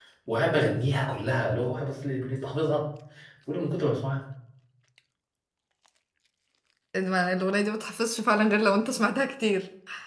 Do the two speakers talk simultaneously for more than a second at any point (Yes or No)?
No